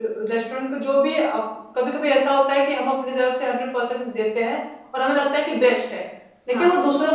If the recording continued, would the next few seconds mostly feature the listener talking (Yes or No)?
No